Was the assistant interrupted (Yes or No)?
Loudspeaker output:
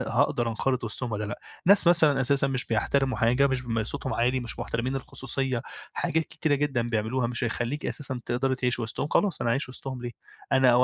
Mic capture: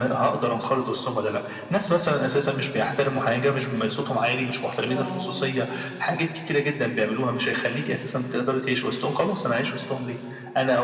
Yes